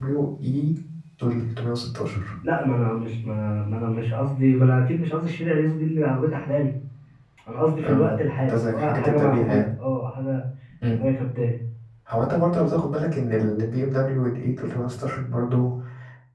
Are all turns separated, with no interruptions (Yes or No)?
No